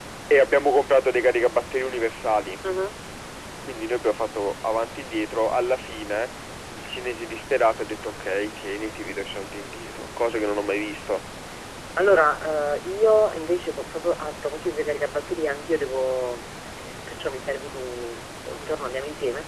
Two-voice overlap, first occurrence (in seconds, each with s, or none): none